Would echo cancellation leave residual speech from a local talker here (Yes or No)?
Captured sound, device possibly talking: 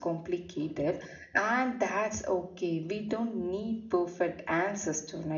No